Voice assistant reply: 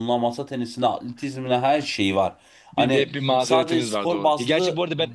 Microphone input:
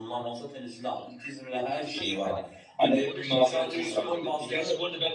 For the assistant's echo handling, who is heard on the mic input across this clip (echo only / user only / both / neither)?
both